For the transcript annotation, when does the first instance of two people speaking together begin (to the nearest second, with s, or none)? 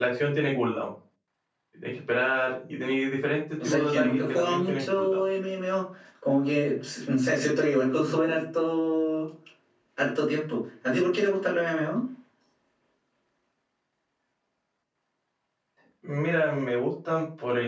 4 s